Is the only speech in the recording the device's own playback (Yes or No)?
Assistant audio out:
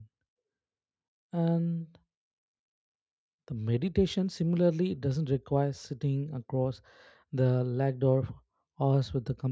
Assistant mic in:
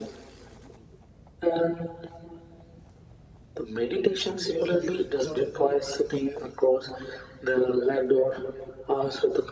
No